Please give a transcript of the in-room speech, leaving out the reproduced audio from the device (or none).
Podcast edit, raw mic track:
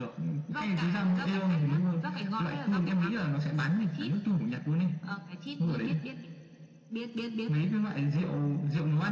none